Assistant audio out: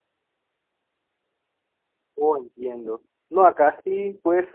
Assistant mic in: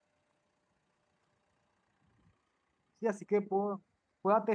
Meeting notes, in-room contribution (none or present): present